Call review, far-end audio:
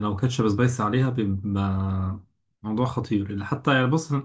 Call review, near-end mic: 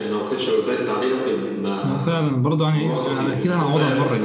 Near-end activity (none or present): present